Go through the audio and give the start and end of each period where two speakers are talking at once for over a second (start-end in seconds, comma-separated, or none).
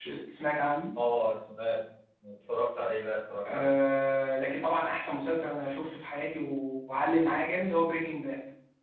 none